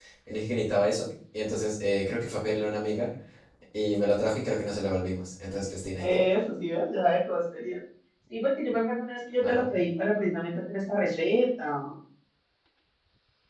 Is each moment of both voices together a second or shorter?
Yes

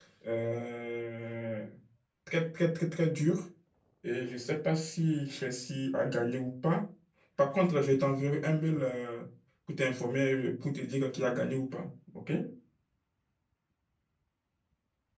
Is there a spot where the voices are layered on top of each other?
No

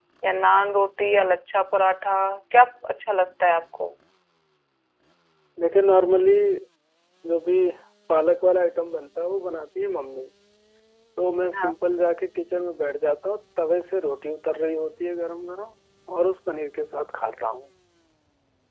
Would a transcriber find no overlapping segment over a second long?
Yes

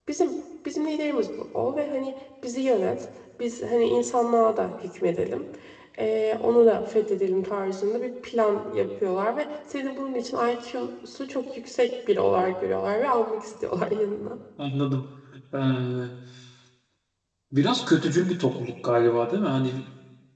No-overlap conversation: Yes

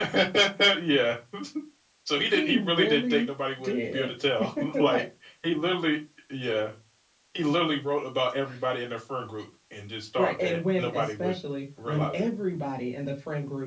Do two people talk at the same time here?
Yes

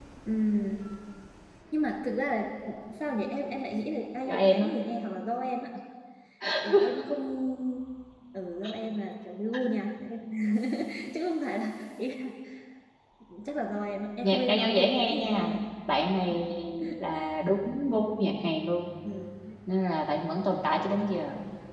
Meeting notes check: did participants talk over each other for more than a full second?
Yes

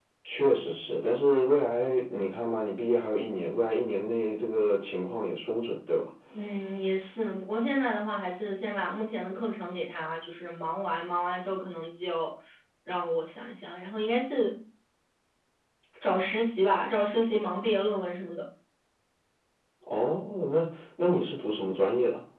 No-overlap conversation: Yes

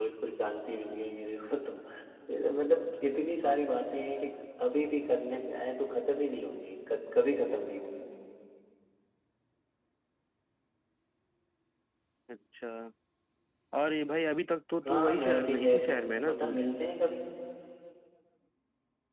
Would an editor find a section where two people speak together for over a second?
Yes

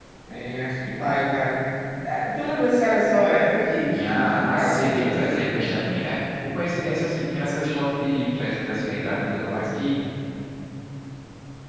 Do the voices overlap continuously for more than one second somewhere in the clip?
Yes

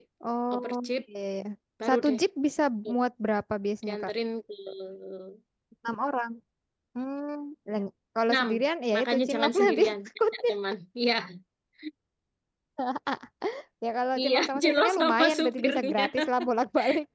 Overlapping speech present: Yes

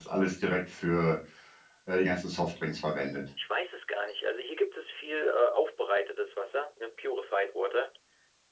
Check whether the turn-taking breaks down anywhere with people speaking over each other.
No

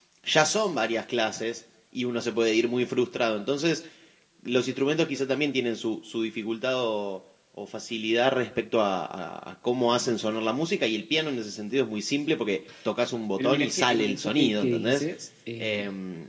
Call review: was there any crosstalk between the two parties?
Yes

